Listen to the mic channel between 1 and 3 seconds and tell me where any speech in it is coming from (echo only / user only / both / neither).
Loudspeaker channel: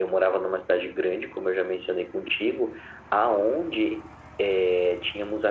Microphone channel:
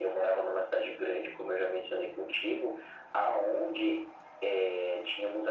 echo only